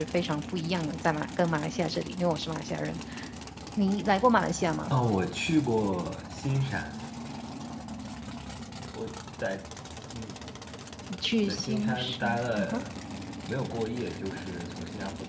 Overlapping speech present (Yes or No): Yes